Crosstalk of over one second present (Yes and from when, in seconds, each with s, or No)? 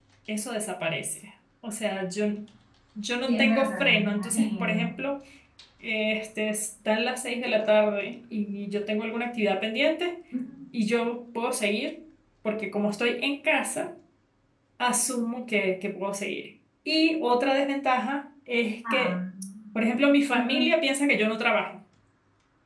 Yes, from 3.3 s